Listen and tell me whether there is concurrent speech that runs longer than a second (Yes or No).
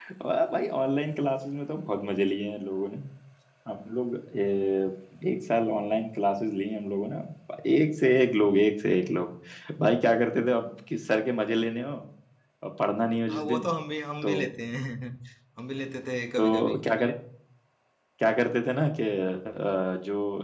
No